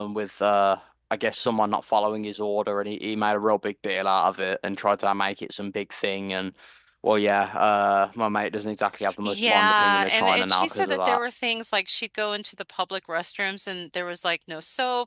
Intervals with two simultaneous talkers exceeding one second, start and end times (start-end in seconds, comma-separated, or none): 9.2-11.2